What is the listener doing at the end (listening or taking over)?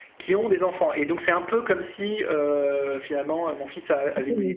taking over